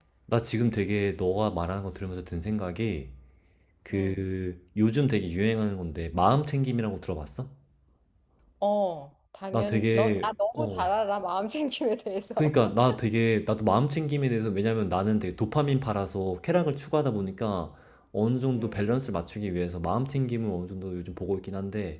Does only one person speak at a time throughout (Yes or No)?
No